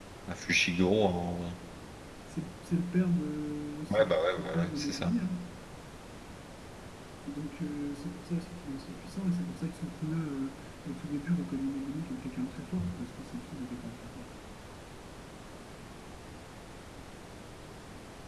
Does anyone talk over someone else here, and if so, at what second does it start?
4 s

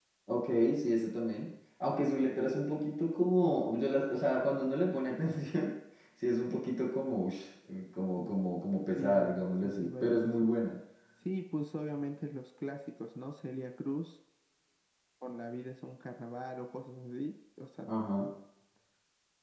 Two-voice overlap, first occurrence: 9 s

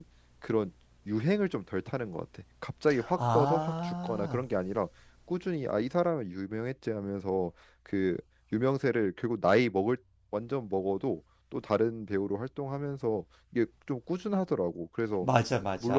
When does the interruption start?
3 s

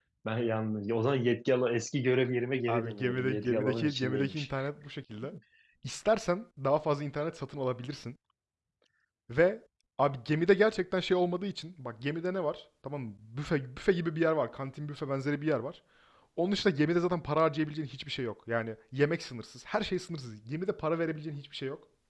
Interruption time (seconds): 3 s

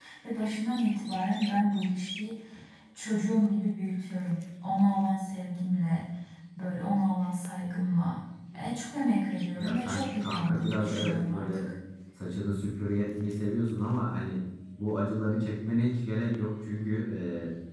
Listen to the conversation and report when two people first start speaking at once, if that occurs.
10 s

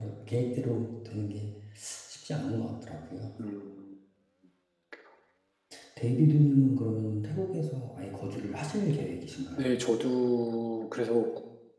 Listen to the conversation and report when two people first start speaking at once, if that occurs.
none

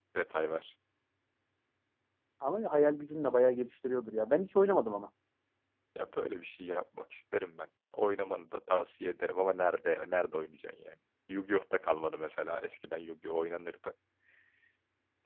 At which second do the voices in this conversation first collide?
none

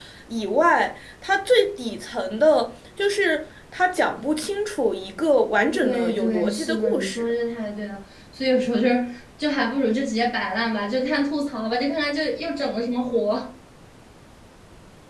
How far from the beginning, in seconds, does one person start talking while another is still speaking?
6 s

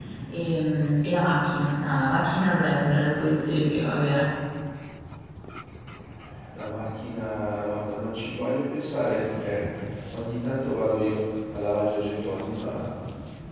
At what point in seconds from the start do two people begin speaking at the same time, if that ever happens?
none

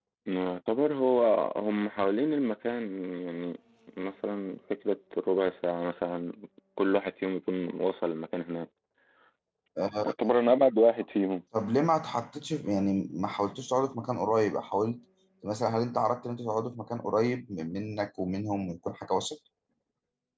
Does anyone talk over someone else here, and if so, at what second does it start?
none

